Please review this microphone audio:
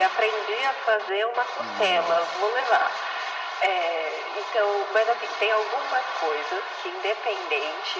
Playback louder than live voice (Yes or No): Yes